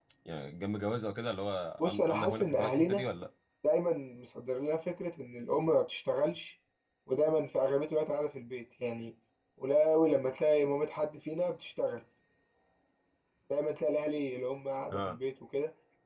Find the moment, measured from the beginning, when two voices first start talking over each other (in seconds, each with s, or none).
1.8 s